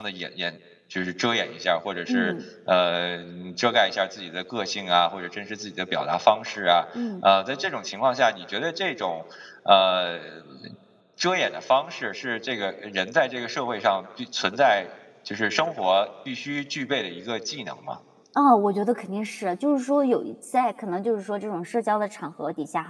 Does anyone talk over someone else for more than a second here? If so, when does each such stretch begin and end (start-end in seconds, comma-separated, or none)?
none